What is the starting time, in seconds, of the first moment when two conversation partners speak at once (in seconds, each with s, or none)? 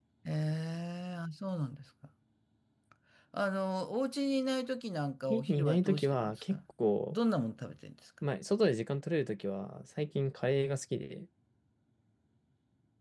5.3 s